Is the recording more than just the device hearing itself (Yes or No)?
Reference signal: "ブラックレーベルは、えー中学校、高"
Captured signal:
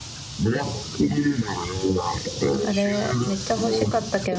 Yes